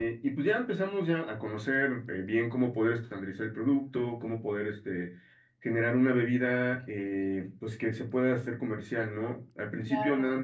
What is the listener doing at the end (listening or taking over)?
listening